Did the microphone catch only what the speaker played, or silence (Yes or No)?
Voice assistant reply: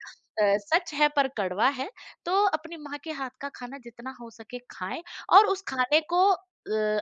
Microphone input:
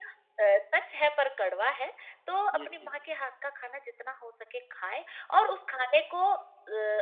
No